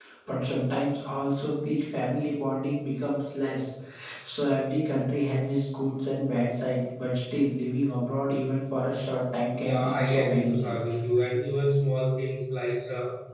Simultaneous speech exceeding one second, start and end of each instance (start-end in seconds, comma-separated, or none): 9.6-10.8